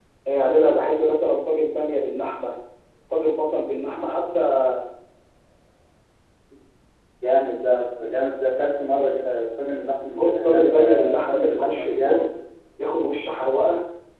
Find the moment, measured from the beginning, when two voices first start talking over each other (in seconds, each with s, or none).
10.1 s